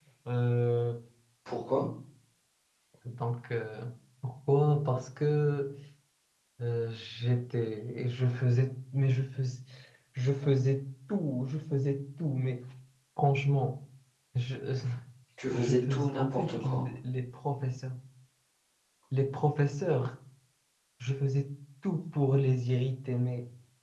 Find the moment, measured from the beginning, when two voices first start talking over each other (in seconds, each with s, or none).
15.5 s